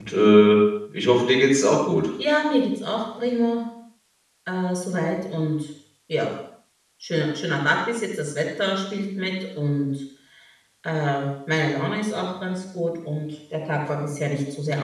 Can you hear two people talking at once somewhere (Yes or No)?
No